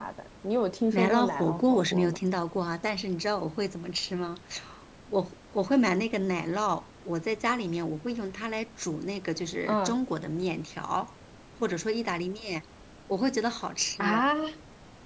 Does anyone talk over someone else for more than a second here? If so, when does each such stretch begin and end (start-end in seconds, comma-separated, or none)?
0.9-2.2